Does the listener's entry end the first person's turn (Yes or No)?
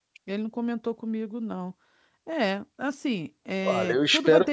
Yes